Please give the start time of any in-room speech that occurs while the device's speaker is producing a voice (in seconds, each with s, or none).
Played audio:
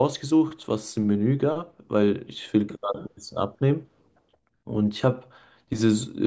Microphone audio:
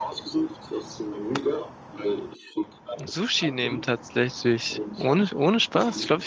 2.9 s